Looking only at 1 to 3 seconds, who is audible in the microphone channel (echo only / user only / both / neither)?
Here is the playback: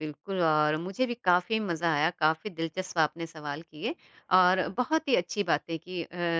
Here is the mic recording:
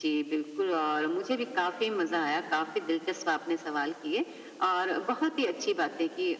echo only